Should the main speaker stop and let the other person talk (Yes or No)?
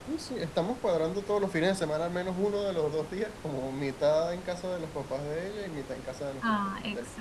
Yes